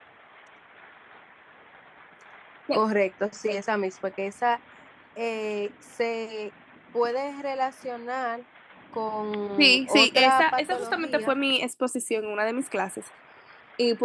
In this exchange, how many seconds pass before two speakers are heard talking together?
9.6 s

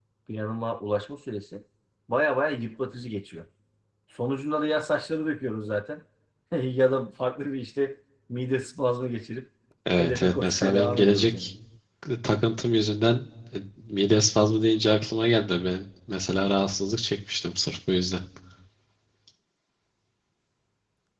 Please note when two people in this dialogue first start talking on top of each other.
10.0 s

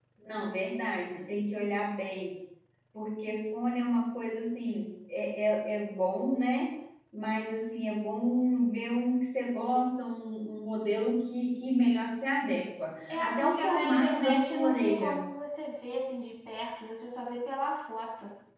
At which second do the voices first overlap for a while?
13.1 s

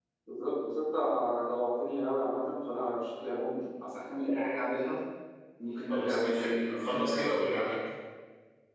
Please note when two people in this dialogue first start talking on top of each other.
5.9 s

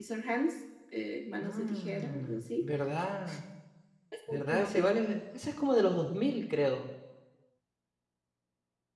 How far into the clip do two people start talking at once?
1.4 s

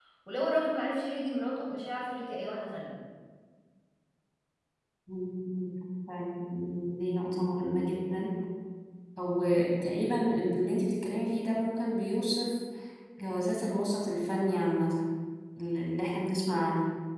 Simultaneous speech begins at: none

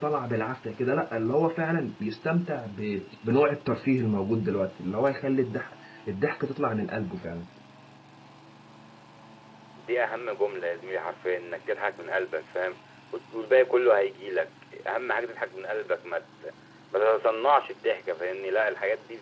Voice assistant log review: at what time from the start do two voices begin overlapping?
none

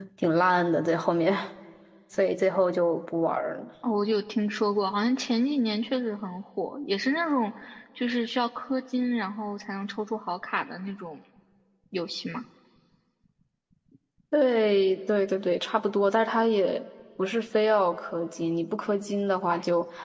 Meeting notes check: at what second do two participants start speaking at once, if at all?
none

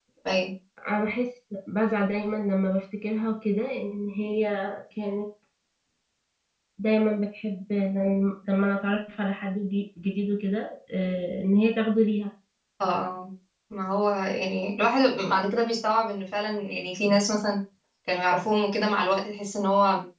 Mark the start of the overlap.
none

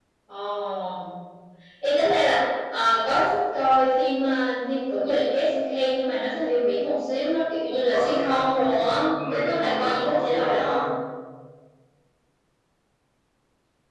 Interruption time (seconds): 7.9 s

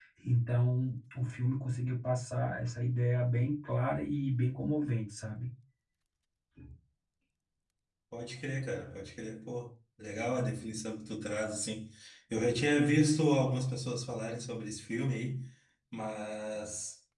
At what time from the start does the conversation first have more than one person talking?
none

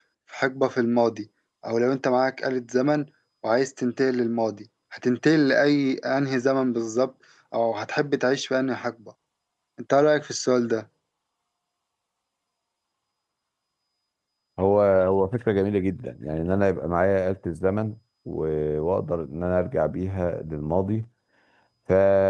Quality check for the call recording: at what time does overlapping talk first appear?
none

